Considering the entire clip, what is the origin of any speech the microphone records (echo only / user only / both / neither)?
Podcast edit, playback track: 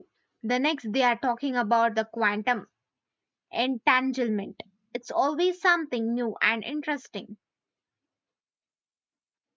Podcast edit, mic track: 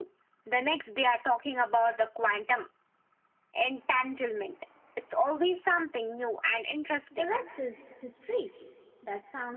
both